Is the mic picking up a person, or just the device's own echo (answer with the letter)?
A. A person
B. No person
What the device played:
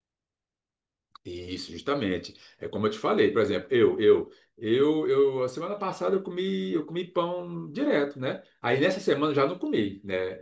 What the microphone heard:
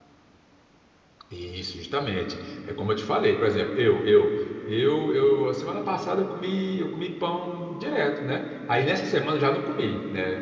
B